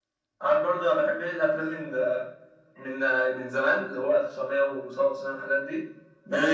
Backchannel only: Yes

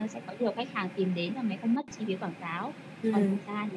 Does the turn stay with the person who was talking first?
Yes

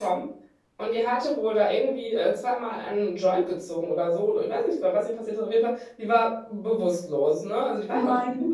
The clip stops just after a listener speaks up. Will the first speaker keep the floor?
Yes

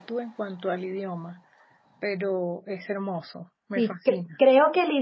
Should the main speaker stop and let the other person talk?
Yes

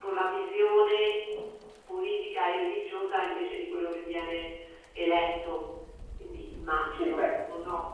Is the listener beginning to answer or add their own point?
Yes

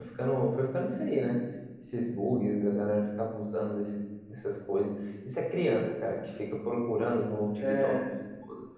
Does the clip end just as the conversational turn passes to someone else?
No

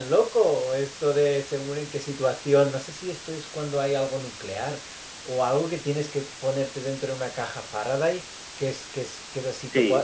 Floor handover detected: Yes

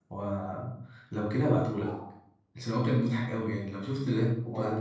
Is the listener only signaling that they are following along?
No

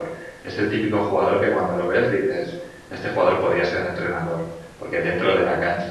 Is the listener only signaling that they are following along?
Yes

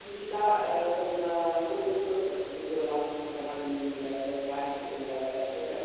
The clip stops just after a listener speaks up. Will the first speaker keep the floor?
Yes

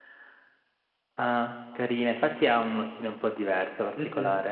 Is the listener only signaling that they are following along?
No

